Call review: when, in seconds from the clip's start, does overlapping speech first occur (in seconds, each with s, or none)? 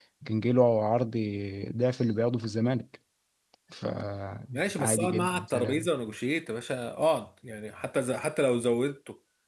4.5 s